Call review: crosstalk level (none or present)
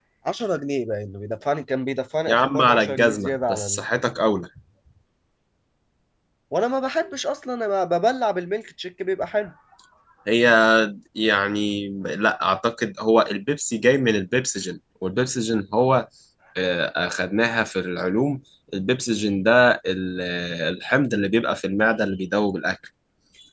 present